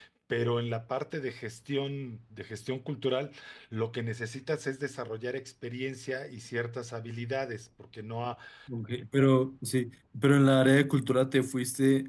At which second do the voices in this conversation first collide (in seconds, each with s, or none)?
none